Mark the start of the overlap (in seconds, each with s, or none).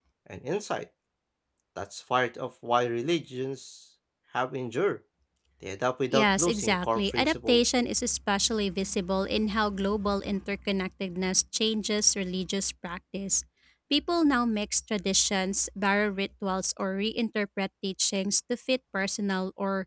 6.1 s